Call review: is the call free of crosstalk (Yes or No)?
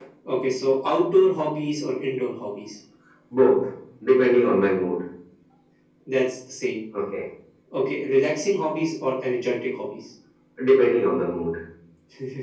Yes